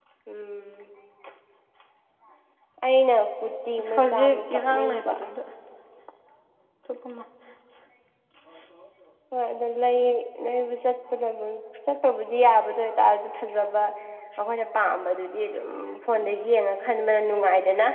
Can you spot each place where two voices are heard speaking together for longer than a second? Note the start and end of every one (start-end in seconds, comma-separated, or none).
3.9-5.1